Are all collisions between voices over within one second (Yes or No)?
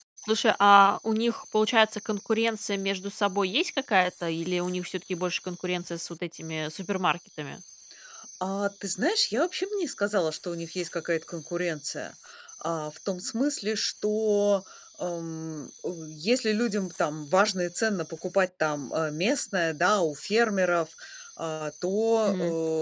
Yes